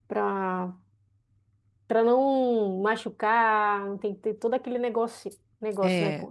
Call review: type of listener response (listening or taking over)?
taking over